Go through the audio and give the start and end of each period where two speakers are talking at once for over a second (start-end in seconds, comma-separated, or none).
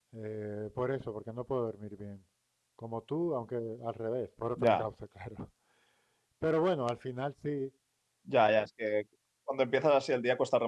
none